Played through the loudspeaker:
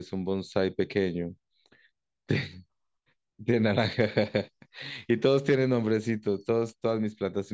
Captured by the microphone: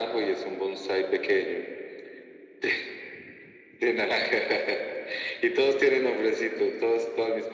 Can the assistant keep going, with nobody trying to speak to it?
Yes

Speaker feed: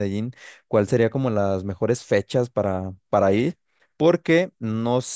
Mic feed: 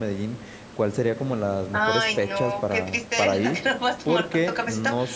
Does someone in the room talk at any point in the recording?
Yes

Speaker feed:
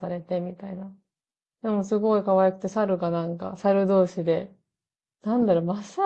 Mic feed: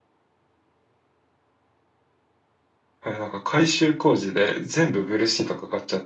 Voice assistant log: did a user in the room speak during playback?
Yes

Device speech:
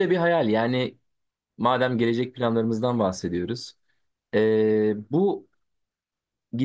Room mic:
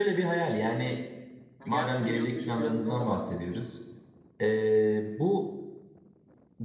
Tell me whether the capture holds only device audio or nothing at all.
No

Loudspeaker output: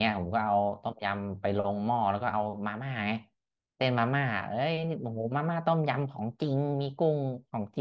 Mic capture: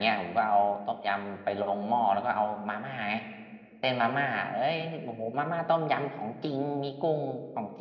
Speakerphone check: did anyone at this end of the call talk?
No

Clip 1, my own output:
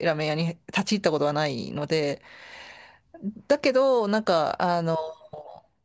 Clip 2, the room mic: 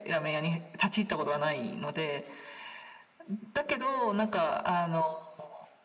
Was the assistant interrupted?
No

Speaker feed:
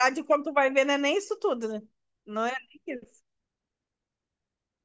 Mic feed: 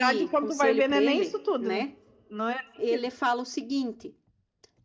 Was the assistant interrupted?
Yes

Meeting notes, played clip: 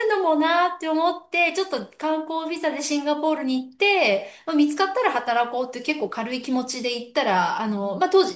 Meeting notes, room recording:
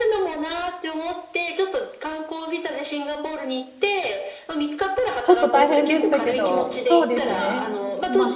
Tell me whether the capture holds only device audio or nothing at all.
No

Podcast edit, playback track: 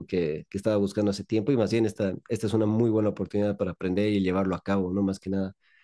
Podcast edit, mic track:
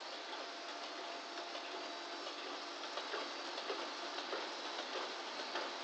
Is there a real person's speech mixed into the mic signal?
No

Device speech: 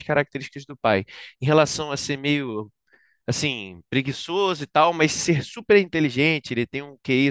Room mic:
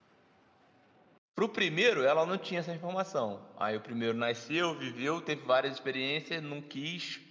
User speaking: Yes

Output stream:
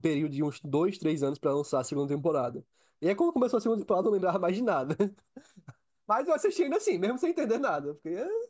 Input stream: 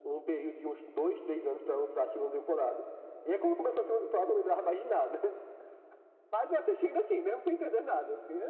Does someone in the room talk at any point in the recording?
No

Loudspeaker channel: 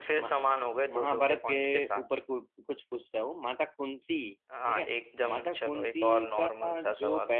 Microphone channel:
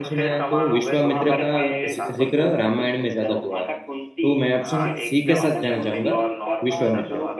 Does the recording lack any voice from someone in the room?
No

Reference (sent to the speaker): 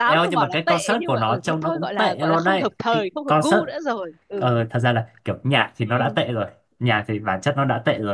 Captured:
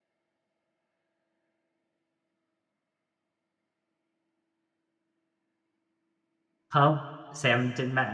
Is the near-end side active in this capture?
Yes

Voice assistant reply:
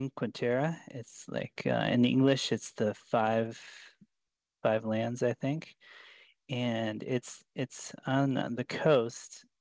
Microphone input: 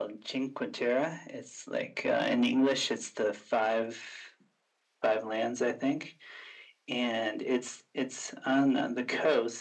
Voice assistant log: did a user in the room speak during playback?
No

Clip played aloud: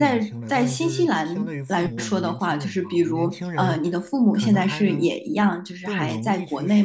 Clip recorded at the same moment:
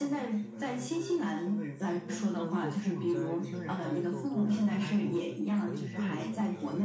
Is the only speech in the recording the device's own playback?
No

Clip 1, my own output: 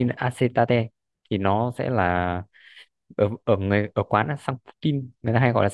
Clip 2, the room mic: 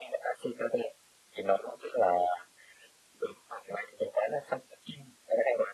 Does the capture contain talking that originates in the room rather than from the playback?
No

